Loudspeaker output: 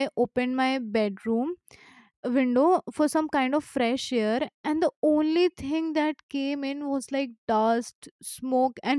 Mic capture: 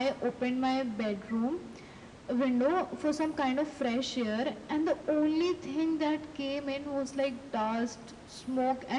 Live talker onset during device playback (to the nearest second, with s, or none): none